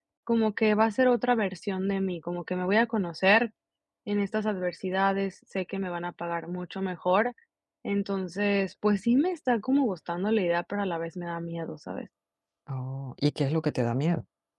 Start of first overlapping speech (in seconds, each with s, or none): none